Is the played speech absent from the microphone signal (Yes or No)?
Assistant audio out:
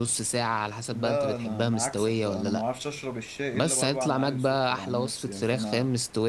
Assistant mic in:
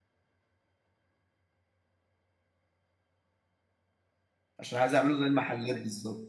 Yes